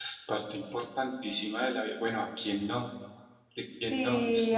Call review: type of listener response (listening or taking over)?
taking over